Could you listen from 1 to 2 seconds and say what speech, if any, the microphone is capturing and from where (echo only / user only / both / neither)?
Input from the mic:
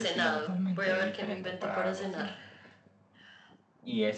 both